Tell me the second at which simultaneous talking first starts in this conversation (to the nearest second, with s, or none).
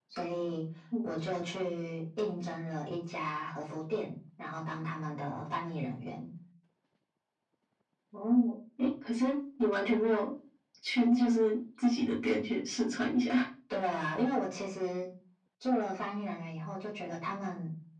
none